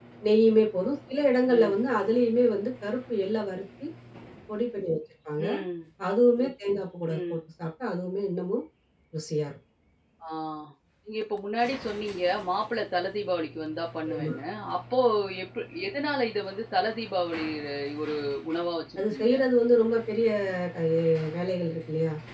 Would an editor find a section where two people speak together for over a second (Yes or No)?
No